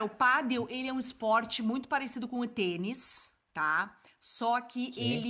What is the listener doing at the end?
listening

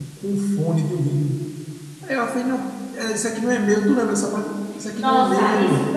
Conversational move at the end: taking over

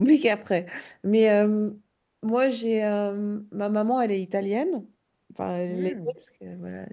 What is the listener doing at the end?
listening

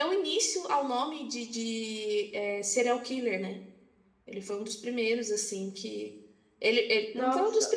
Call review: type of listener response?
listening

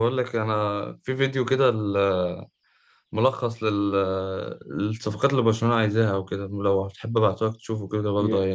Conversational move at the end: taking over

